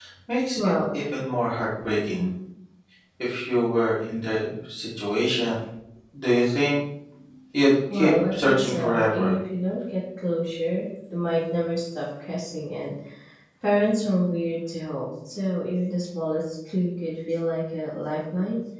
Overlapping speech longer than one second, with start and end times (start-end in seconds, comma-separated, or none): 7.9-9.3